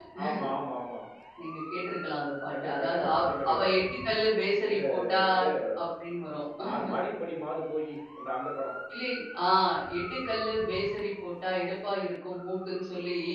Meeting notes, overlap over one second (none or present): present